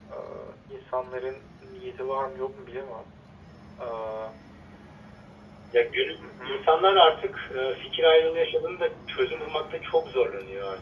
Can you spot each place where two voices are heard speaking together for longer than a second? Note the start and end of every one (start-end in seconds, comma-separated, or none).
none